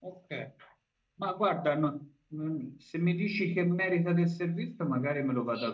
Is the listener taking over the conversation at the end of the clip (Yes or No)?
Yes